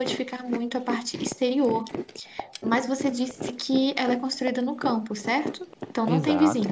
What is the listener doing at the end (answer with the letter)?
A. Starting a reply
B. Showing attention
A